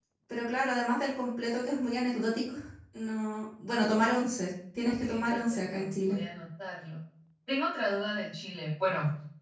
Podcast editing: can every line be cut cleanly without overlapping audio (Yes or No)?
No